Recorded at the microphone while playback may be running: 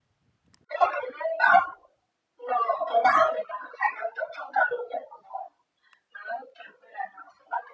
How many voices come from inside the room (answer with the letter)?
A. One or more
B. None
B